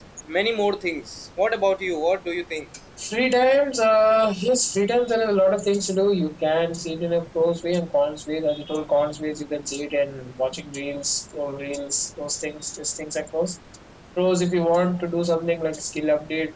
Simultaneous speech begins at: none

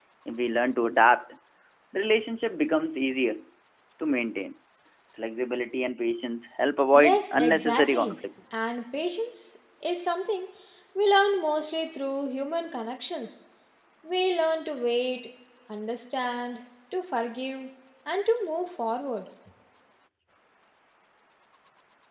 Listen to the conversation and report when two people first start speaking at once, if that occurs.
6.9 s

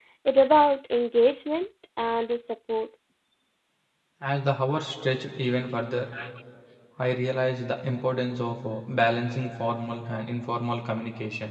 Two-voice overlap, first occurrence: none

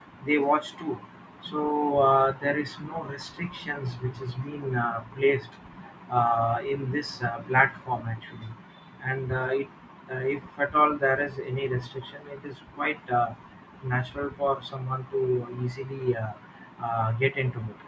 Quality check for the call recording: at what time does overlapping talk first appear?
none

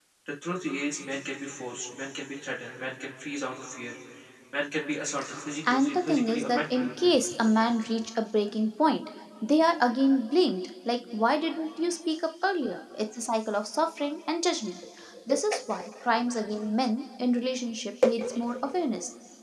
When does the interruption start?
5.7 s

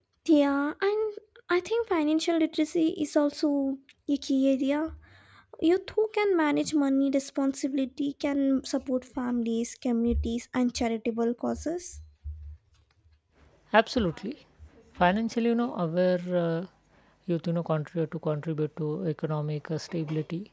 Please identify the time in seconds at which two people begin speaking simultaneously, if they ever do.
none

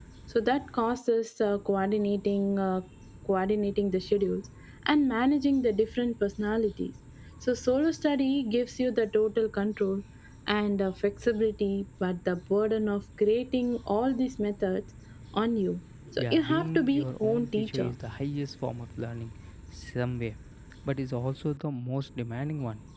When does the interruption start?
16.1 s

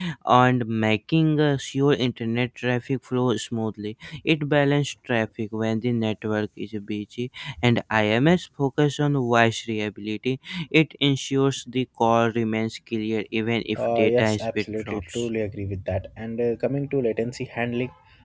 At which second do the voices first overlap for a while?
13.8 s

